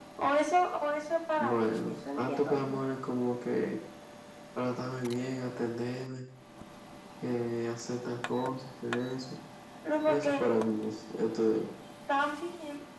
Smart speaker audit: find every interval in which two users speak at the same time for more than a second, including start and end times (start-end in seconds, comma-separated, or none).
1.4-2.8